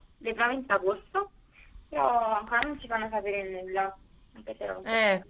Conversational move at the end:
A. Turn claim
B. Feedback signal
A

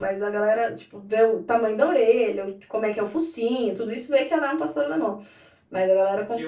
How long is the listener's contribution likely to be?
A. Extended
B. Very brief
A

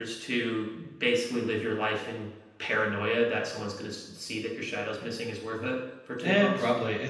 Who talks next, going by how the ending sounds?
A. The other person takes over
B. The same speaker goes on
A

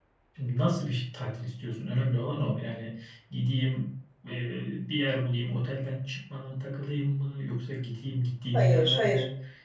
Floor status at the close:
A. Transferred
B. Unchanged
B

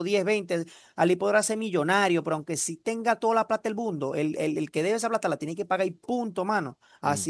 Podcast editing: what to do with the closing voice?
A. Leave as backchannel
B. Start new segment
A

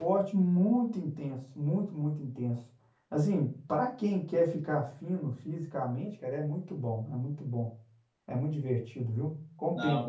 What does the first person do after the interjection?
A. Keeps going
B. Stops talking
A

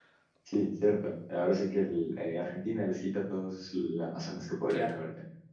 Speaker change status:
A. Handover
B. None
A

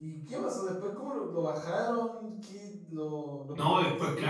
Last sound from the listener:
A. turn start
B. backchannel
A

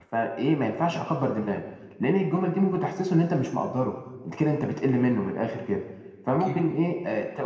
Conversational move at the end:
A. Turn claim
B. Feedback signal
B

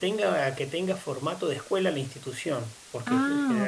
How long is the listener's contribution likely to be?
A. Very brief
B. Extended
A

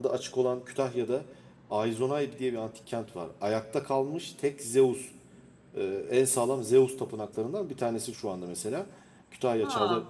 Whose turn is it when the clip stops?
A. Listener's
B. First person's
B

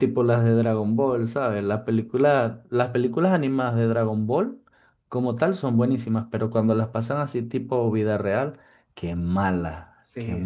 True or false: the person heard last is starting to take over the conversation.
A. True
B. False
A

